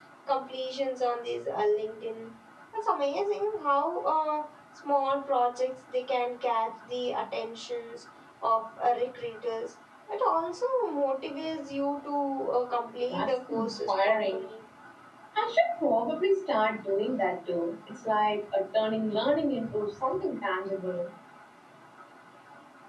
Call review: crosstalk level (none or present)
present